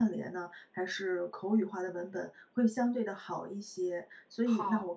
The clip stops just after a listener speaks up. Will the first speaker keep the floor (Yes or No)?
Yes